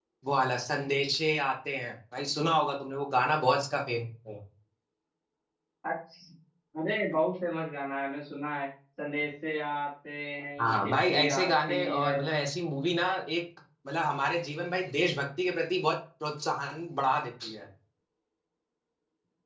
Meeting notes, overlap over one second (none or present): present